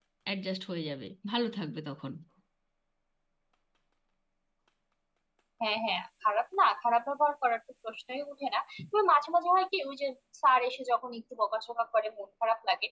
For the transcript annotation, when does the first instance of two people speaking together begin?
none

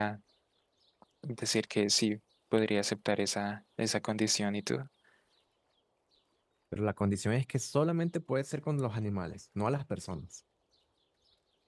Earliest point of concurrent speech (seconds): none

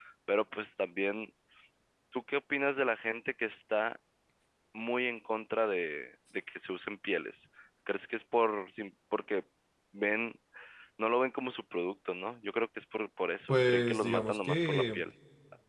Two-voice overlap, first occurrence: 13.5 s

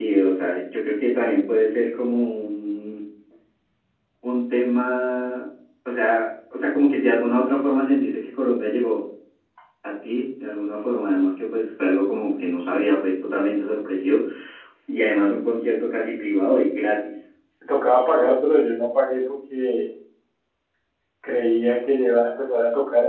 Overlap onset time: none

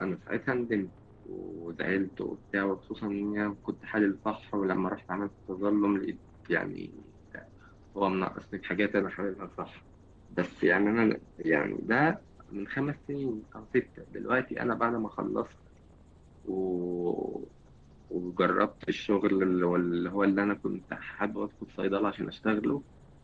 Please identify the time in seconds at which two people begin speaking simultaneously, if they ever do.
none

